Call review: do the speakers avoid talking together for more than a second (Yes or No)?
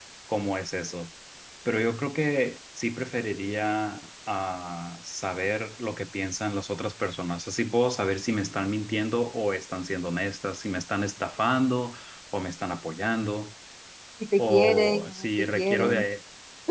No